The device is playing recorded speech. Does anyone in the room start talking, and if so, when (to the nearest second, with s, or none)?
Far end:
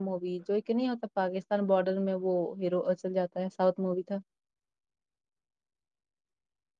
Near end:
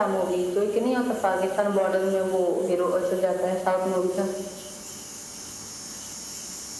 none